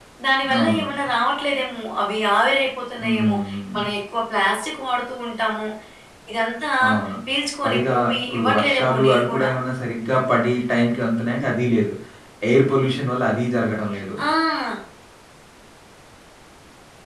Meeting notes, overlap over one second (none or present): present